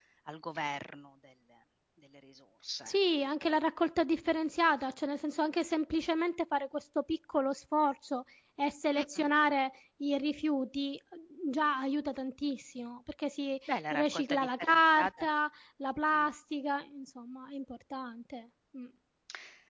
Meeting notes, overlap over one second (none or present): present